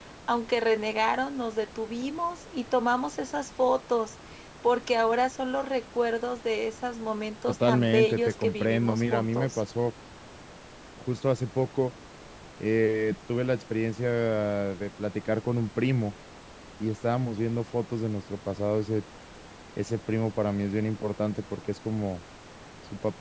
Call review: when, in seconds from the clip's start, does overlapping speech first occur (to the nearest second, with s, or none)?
7 s